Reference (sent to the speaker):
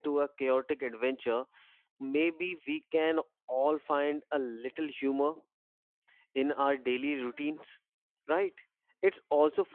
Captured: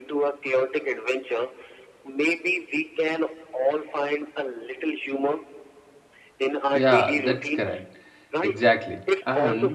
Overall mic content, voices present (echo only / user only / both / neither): both